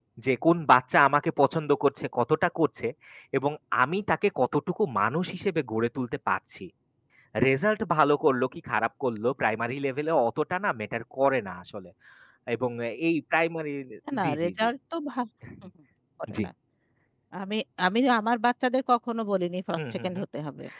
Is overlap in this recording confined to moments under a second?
Yes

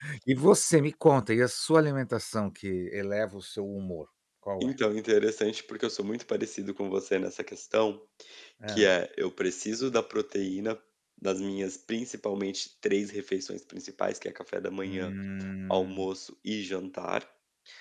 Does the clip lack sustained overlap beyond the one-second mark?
Yes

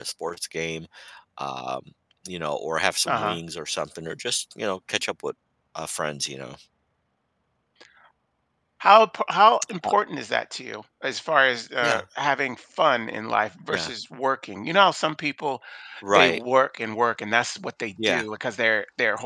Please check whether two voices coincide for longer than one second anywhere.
No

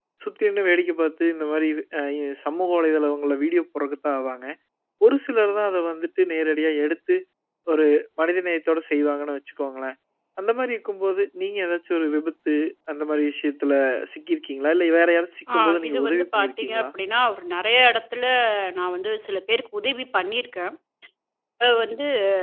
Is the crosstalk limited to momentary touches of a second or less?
No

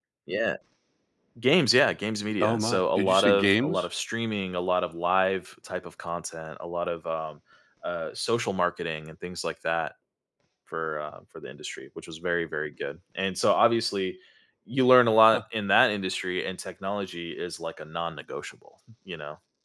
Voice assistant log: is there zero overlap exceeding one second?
No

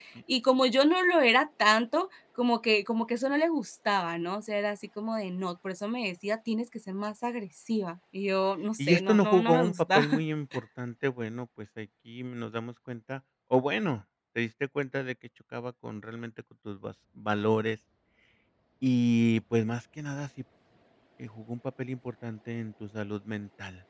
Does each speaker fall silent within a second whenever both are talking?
No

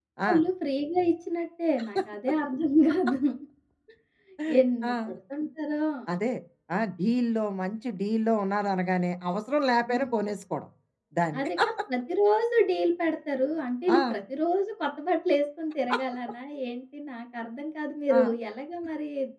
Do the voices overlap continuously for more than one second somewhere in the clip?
No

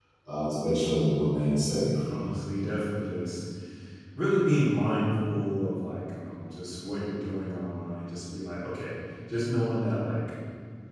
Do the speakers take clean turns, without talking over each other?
Yes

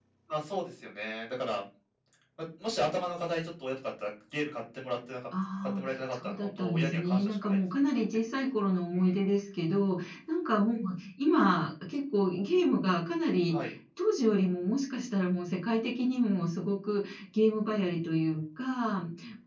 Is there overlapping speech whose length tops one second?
Yes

